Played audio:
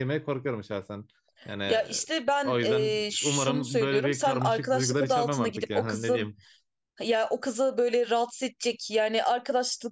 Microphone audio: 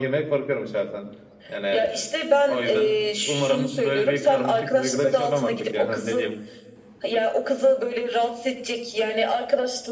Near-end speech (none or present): none